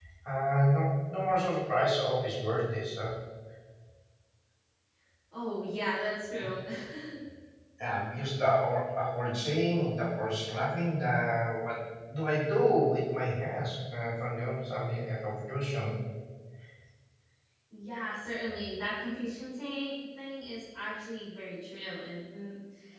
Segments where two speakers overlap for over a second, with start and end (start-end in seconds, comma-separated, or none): none